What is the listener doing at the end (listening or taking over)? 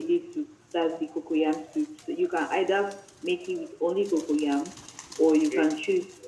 listening